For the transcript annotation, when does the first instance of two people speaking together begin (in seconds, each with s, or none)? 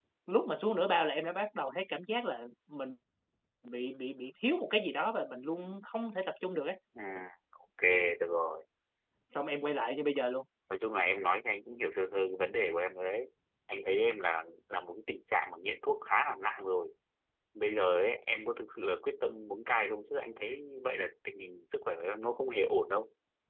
none